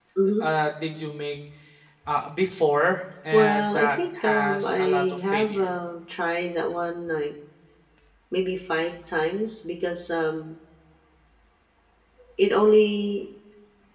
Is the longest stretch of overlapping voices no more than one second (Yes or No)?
No